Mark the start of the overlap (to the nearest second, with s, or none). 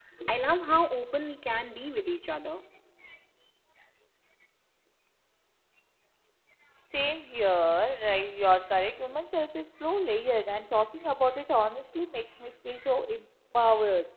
none